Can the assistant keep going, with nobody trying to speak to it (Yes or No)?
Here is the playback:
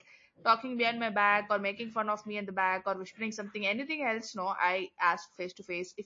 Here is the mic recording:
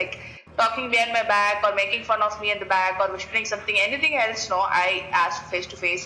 Yes